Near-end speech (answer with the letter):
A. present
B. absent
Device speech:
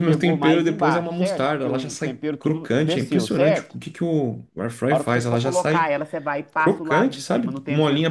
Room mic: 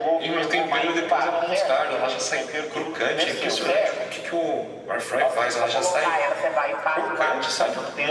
B